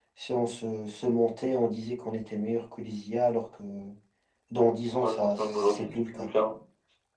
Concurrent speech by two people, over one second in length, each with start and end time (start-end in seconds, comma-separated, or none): 4.9-6.3